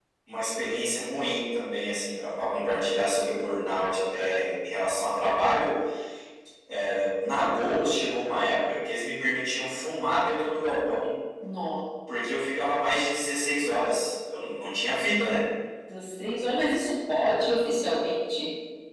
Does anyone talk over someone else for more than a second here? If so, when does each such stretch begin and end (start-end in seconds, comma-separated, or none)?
none